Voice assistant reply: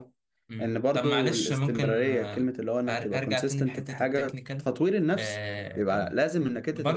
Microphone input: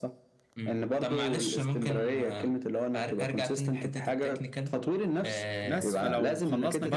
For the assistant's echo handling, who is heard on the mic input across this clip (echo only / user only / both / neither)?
both